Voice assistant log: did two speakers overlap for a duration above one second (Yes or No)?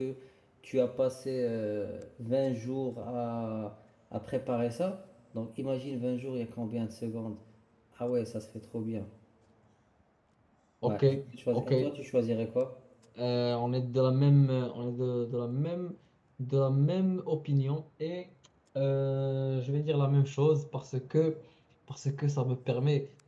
No